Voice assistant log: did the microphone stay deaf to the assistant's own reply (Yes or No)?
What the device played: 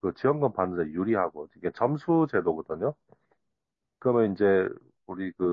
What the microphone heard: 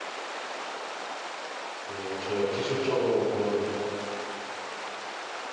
Yes